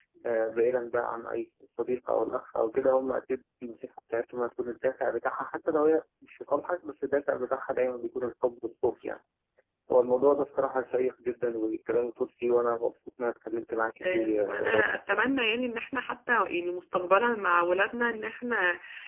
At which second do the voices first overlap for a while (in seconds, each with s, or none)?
14.0 s